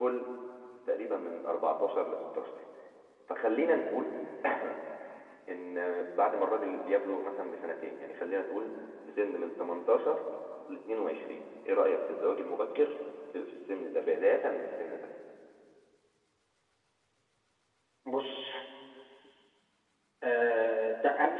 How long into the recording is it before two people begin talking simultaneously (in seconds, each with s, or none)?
none